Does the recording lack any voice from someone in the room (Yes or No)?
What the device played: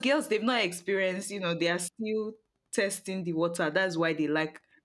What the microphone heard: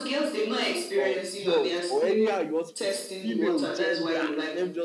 No